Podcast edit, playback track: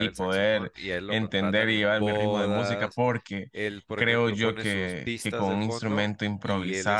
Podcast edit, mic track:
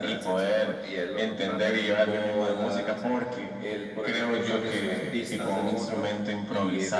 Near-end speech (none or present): none